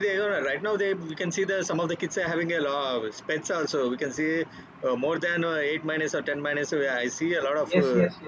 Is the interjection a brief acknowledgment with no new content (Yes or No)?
No